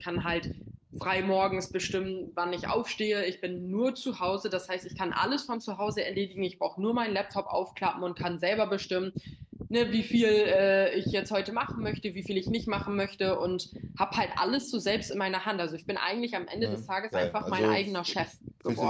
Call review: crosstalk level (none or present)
present